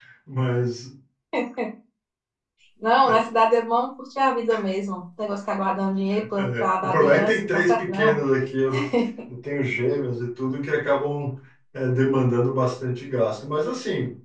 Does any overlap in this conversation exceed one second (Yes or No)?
Yes